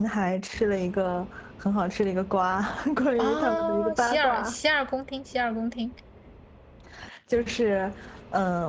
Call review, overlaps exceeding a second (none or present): present